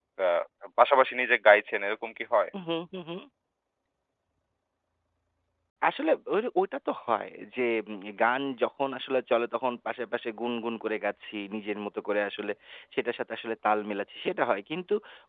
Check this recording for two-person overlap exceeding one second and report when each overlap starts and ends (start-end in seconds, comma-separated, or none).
none